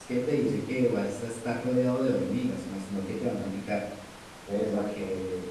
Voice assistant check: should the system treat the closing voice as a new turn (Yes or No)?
No